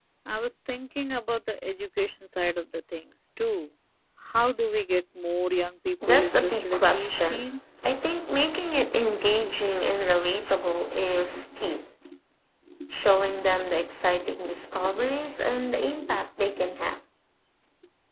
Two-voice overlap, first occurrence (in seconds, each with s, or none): 6.1 s